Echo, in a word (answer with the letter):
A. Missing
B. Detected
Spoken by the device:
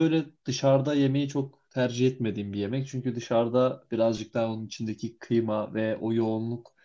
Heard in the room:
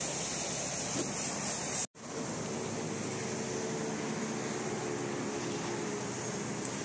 A